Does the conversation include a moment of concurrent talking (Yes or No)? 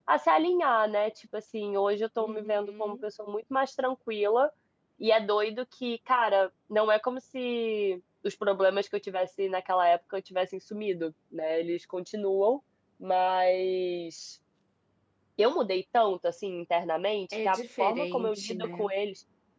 Yes